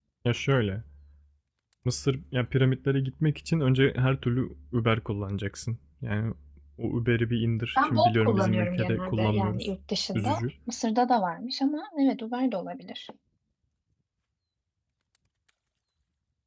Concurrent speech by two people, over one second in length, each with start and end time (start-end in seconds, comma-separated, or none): 7.8-9.8